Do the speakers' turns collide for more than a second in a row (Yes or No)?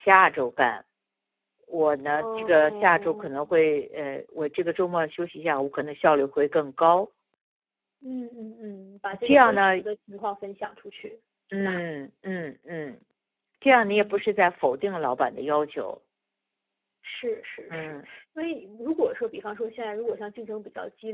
Yes